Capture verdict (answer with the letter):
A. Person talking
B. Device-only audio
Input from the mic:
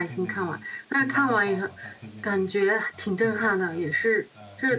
A